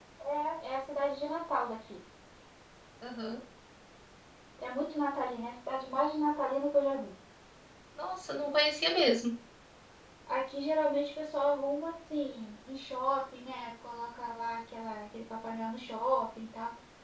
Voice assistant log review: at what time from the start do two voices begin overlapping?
none

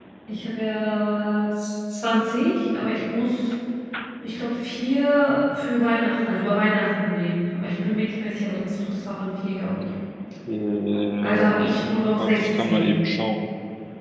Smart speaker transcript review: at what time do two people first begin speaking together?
11 s

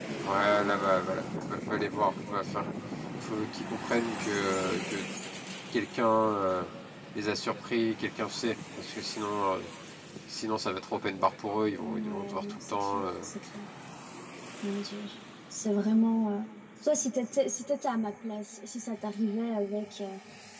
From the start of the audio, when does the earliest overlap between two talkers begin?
12 s

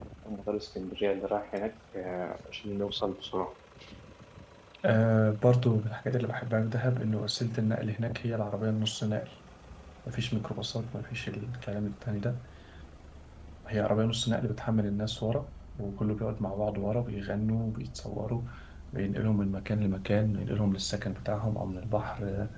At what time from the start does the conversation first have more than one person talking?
none

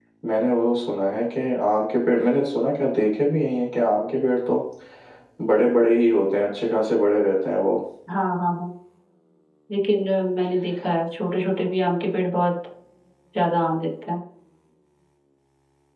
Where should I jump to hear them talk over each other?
none

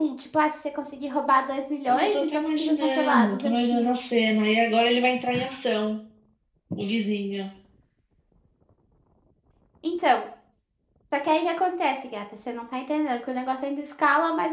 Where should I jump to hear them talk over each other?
2 s

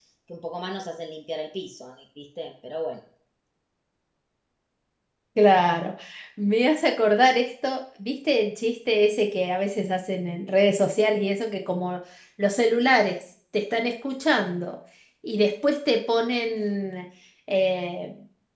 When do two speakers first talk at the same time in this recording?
none

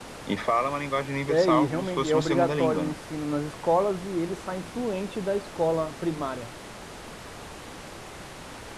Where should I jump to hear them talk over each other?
1 s

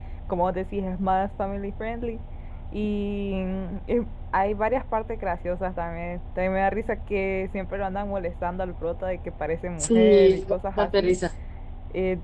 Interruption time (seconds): 10 s

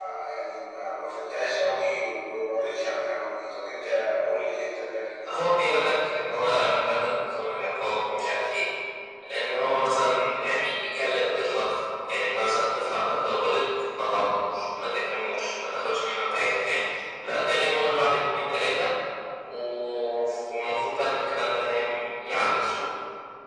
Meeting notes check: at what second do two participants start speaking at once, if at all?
5 s

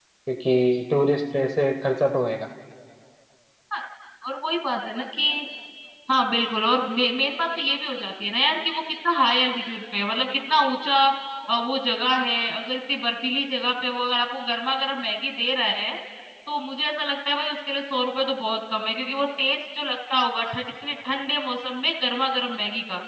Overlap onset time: none

